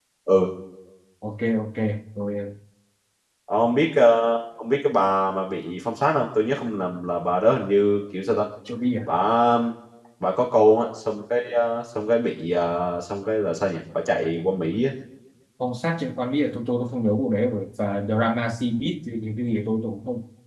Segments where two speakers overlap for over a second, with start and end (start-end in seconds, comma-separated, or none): none